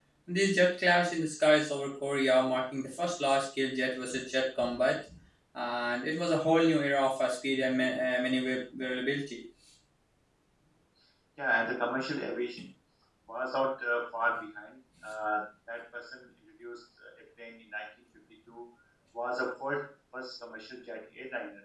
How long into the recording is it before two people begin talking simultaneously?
none

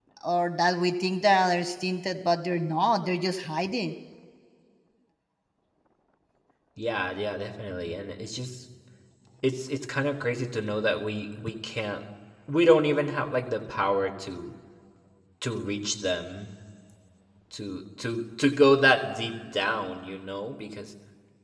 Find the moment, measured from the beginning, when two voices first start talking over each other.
none

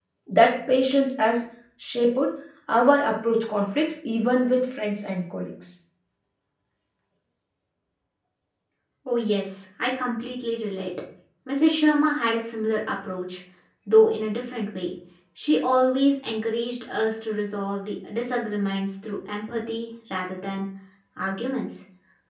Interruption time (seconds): none

